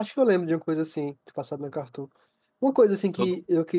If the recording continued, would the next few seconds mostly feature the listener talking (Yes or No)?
No